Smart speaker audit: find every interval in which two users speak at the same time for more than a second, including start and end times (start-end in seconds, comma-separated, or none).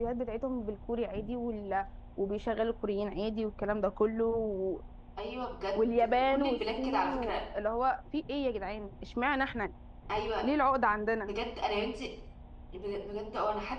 5.8-7.3